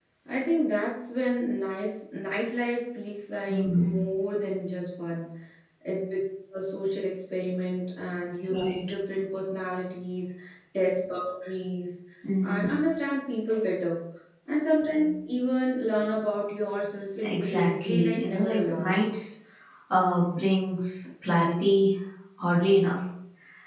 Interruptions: present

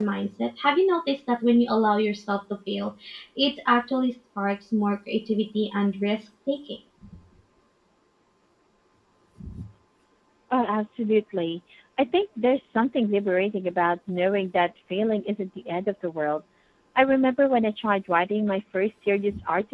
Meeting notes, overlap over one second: none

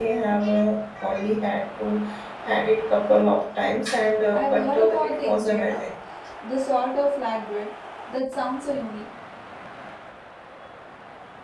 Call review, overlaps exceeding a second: present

